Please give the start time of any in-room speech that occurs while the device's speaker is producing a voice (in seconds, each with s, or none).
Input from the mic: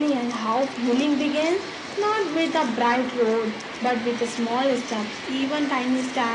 none